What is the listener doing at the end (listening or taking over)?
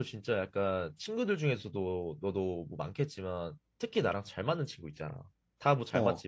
listening